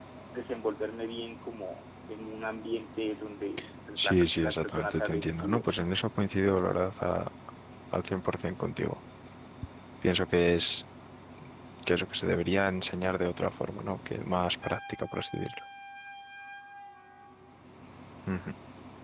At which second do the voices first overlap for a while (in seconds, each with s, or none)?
4.0 s